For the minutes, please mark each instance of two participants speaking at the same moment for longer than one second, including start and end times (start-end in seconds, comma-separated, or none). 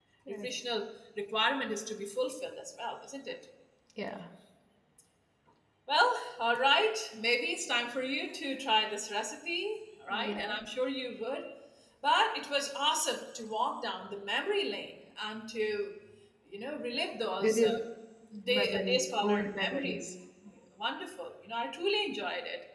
18.5-20.0